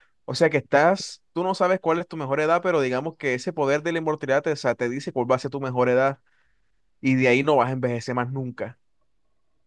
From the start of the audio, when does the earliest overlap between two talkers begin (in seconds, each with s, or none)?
none